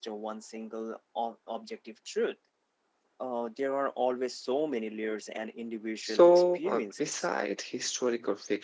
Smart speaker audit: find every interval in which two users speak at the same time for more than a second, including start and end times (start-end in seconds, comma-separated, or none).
6.0-7.3